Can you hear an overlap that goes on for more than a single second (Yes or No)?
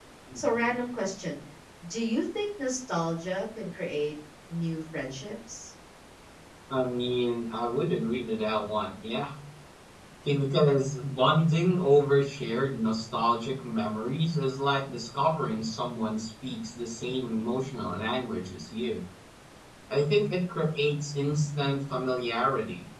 No